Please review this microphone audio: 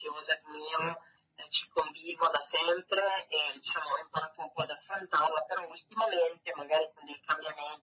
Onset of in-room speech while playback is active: none

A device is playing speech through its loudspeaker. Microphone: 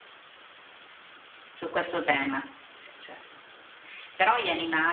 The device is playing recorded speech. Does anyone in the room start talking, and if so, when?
1.5 s

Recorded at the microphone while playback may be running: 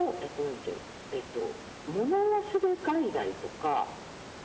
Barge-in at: none

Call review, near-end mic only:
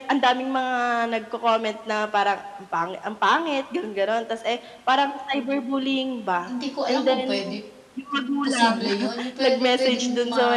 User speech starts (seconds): 6.4 s

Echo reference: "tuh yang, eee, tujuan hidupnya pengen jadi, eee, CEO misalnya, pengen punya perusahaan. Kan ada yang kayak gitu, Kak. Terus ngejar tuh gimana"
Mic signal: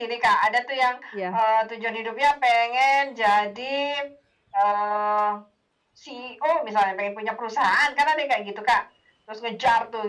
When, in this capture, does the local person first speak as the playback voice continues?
1.1 s

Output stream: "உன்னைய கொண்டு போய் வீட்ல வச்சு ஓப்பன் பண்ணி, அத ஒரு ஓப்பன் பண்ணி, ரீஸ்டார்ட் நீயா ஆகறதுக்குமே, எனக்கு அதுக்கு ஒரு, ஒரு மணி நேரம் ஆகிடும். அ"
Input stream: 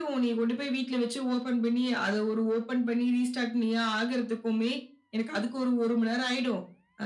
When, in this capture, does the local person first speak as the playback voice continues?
none

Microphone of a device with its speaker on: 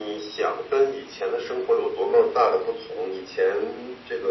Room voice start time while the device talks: none

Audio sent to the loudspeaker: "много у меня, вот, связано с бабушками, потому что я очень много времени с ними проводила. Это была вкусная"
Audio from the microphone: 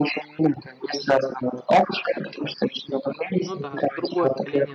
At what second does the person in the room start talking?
3.4 s

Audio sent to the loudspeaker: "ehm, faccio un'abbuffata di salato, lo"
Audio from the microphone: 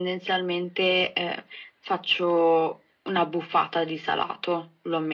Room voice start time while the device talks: none

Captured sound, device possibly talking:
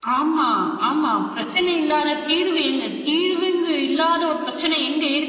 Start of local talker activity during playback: none

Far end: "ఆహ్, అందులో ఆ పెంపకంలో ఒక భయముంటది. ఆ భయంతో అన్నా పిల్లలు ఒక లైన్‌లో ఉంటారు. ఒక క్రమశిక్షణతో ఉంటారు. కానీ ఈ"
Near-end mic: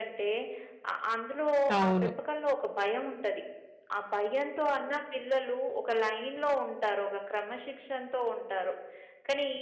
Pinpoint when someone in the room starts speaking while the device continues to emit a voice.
1.7 s

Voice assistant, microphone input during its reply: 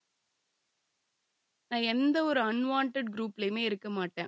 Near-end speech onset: 1.7 s

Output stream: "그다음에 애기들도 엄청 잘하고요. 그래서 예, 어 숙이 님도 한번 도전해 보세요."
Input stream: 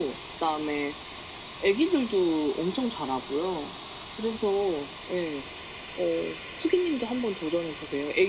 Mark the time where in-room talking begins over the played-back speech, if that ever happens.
none

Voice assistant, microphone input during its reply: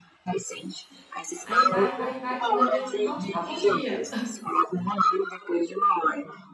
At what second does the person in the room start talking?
1.4 s

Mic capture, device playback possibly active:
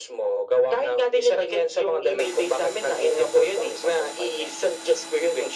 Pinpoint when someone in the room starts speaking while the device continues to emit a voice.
none

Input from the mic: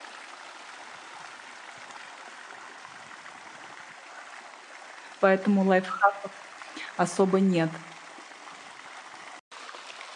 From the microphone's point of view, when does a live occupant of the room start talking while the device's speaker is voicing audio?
5.2 s

